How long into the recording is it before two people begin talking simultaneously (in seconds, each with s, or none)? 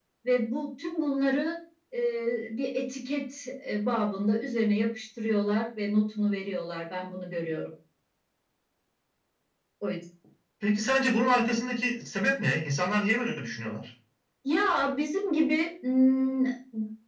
none